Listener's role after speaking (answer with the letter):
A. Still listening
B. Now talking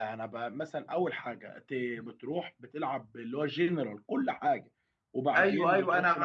B